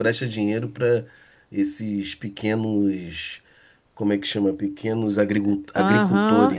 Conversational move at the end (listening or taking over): taking over